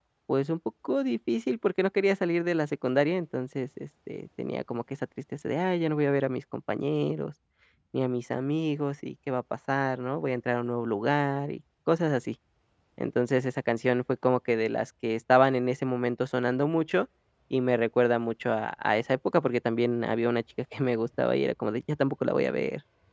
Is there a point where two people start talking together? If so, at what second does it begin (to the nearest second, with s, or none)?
none